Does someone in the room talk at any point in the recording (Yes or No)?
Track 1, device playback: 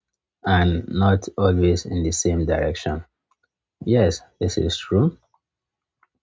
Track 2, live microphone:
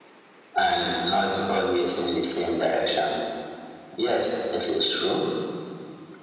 No